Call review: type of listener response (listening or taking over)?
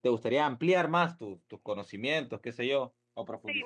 taking over